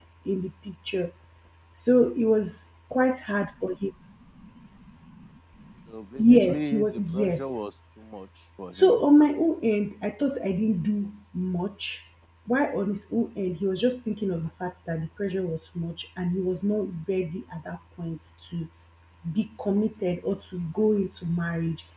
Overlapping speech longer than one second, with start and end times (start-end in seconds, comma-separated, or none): 6.2-7.4